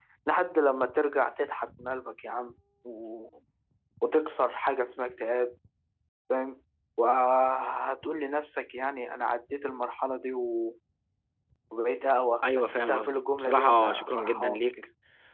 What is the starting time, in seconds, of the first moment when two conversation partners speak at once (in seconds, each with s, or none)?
12.6 s